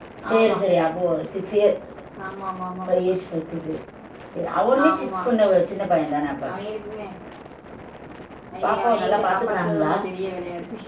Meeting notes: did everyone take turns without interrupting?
No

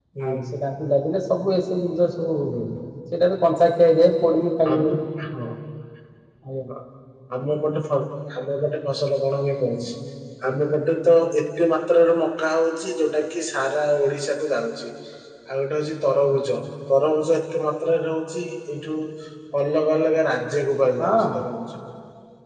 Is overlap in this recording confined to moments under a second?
Yes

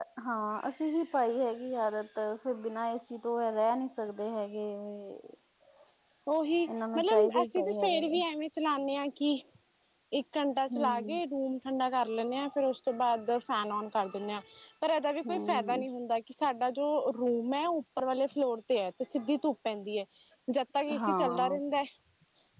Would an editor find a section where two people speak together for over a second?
Yes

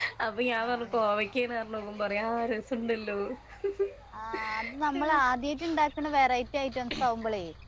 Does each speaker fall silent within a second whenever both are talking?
Yes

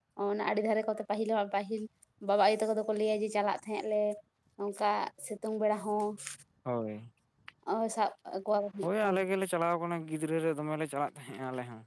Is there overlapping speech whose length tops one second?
No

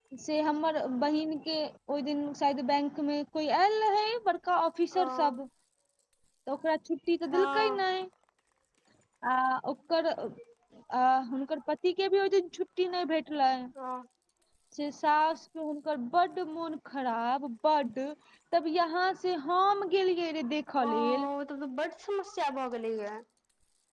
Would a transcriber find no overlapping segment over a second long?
Yes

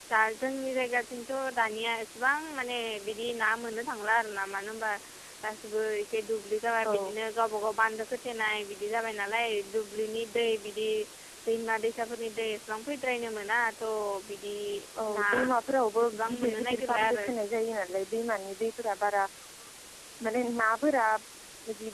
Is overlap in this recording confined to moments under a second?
No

